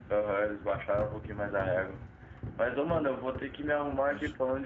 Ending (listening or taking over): listening